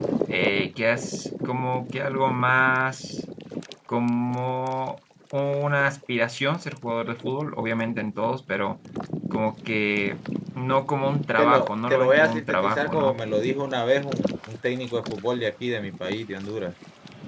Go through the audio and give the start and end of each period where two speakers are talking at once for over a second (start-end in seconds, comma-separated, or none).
11.4-13.2